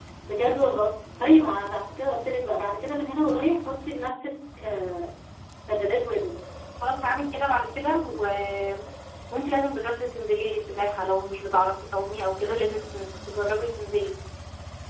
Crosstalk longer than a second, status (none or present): none